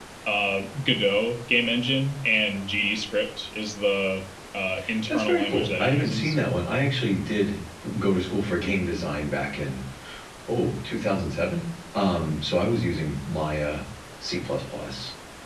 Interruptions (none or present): present